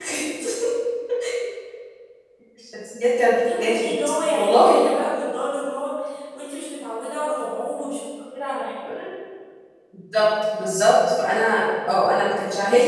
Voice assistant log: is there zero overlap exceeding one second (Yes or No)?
Yes